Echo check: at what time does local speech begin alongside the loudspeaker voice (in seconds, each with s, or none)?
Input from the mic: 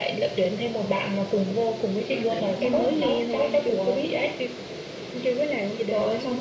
2.1 s